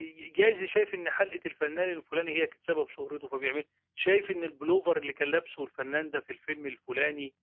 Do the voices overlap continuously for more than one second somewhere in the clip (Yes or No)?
No